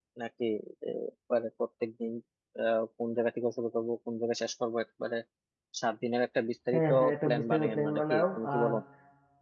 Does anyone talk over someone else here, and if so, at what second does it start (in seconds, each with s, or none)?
6.7 s